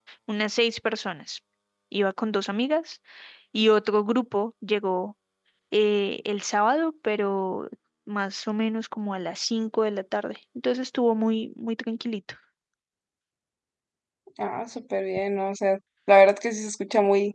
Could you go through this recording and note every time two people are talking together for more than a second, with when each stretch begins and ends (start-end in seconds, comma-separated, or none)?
none